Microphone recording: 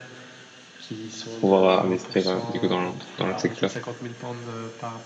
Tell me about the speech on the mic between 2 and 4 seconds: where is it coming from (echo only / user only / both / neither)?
both